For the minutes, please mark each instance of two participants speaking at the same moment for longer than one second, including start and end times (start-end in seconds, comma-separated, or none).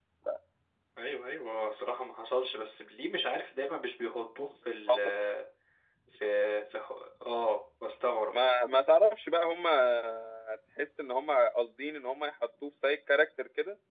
none